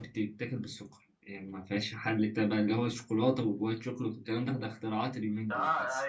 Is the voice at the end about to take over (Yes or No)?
Yes